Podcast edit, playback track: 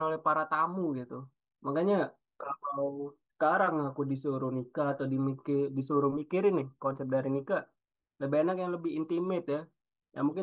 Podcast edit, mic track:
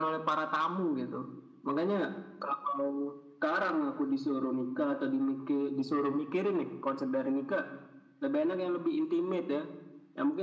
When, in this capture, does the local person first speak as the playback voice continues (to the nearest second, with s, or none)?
none